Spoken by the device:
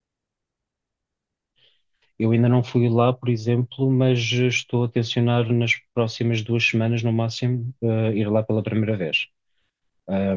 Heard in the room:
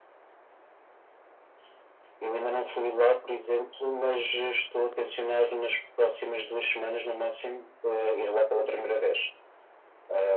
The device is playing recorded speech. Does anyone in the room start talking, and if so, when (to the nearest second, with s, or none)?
none